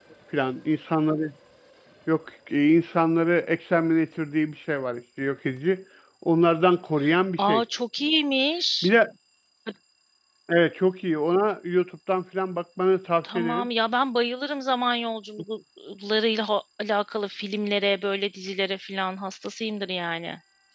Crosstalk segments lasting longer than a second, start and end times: none

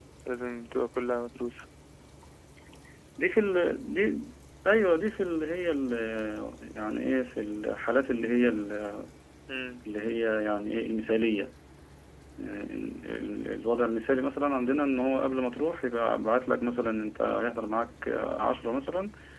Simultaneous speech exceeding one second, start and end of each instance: none

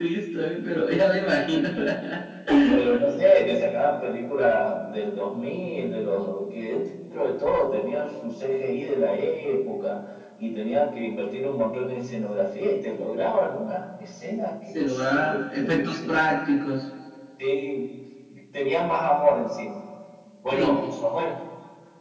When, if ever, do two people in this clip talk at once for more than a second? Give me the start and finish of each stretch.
14.7-16.4

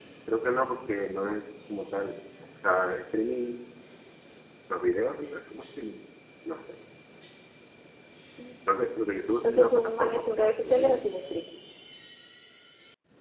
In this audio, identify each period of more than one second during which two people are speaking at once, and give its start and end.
9.4-11.0

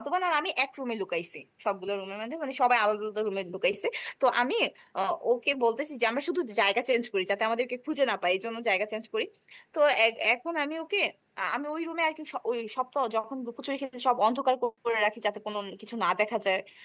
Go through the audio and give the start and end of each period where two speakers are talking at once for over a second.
none

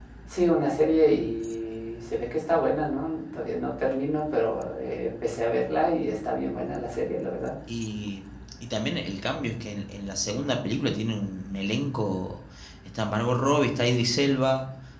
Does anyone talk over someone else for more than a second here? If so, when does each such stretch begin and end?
none

